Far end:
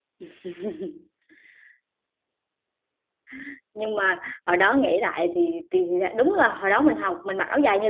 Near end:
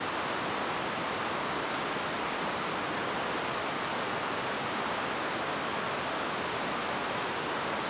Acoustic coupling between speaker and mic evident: No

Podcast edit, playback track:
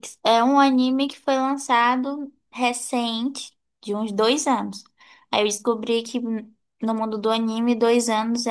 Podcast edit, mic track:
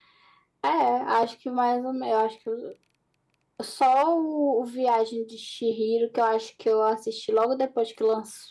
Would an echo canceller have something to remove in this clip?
No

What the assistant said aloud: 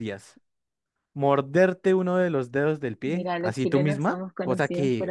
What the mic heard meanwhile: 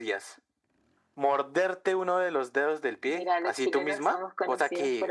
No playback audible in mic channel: No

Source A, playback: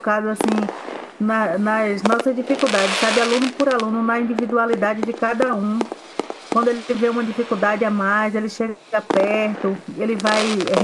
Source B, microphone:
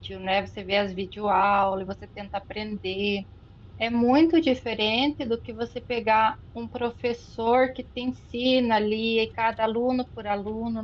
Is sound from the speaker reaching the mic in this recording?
No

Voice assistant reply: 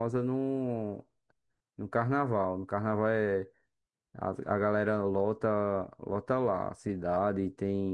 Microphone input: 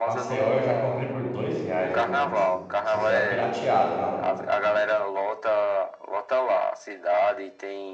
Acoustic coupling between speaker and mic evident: Yes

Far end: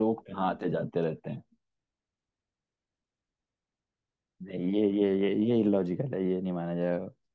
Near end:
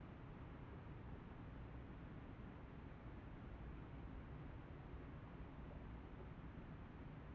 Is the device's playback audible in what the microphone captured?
No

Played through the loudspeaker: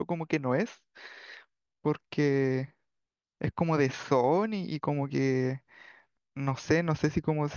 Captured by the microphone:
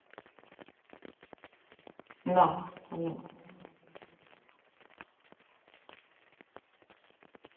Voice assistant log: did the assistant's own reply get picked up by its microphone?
No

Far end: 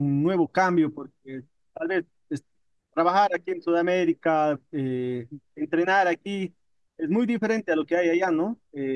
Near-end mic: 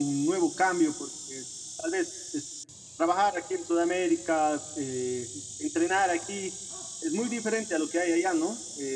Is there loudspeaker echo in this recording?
Yes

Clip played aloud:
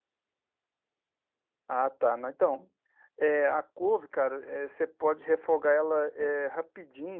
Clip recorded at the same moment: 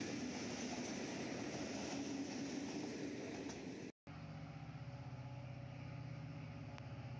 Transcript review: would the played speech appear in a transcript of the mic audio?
No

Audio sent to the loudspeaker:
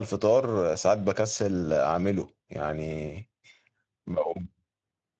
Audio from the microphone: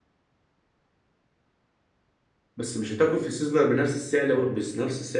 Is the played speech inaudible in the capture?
Yes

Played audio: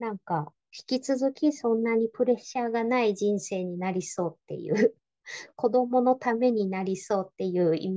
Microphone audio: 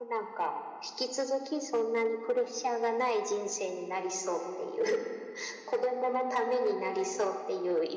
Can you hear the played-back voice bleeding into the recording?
Yes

